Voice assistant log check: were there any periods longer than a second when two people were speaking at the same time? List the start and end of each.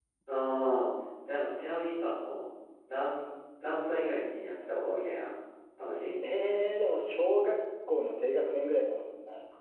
none

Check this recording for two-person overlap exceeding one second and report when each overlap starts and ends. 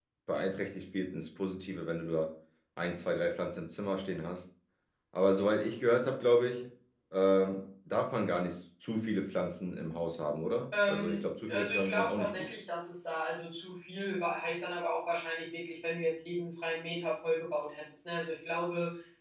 10.9-12.5

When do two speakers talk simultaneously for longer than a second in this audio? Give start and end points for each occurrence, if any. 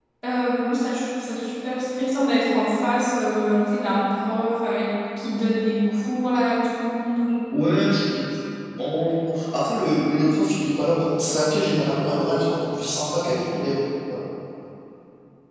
none

